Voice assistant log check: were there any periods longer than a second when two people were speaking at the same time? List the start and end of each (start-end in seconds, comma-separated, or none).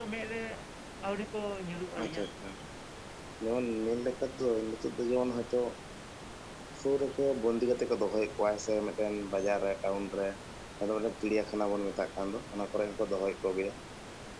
none